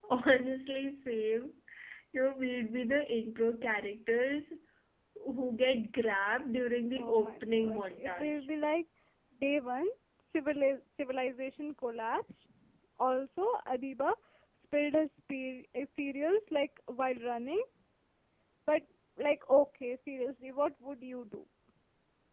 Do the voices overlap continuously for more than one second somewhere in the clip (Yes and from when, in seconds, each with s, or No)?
Yes, from 7.0 s